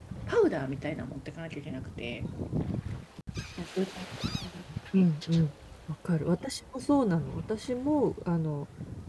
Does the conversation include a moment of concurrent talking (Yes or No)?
No